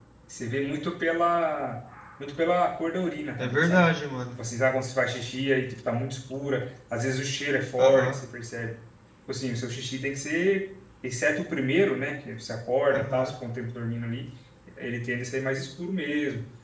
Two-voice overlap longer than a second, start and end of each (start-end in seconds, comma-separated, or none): none